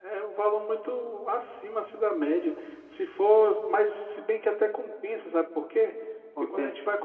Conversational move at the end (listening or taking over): listening